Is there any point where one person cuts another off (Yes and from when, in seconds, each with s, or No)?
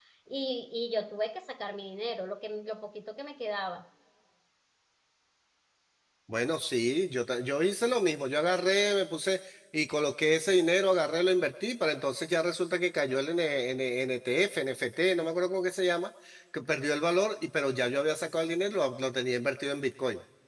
No